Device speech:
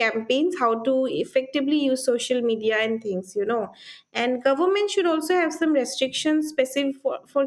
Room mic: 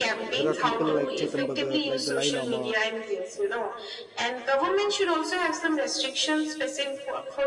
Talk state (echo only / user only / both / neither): both